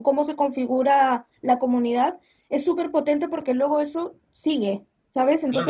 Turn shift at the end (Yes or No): Yes